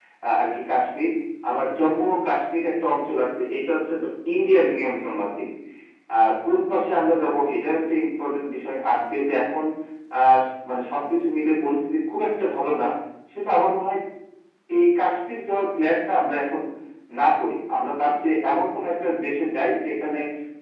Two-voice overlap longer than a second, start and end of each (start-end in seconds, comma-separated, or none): none